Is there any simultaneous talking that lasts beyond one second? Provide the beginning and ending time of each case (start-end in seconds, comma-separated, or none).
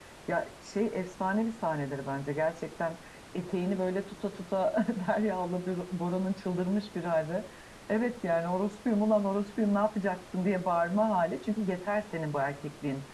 none